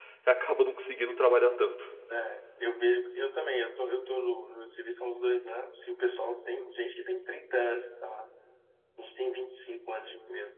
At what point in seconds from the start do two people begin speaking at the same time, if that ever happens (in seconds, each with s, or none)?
none